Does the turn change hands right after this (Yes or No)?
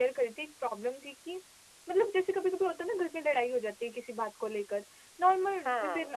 No